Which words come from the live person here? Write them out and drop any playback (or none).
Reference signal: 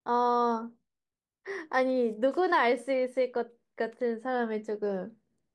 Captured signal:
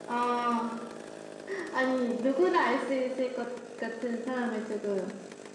none